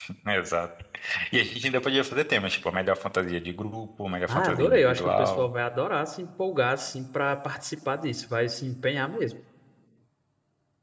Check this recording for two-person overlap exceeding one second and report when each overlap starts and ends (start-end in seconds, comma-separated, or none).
4.3-5.5